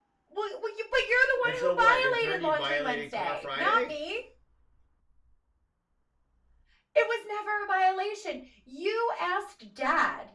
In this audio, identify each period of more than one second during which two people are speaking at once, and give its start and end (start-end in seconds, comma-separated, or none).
1.4-3.9